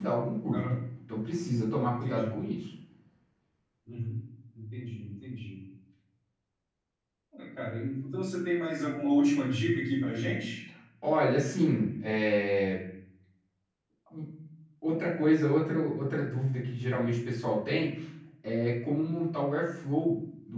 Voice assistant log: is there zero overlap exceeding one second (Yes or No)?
Yes